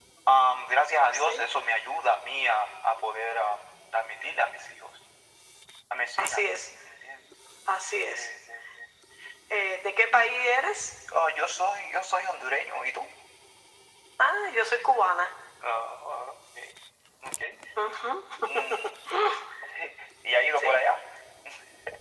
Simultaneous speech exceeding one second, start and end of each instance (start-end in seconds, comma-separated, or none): none